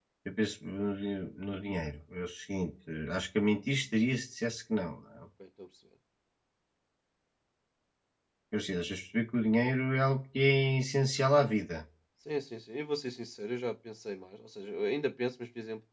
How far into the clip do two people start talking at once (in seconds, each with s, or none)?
none